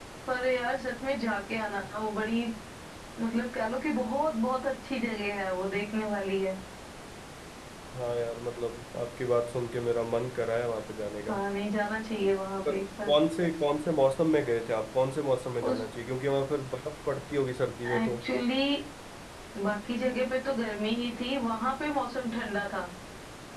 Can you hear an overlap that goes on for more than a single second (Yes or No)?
No